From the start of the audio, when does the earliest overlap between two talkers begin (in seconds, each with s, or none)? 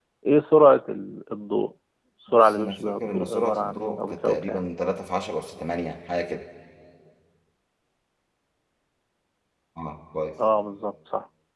2.3 s